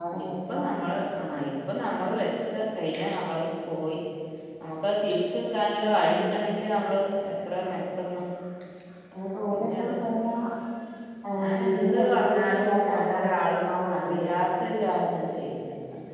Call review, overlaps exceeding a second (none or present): present